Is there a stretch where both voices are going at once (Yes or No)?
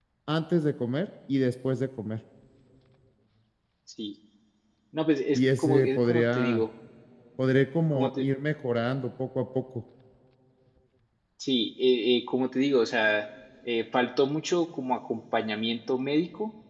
Yes